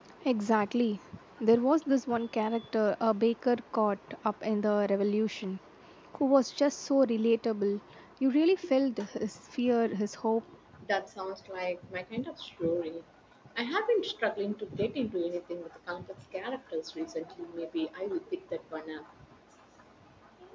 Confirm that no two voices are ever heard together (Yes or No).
Yes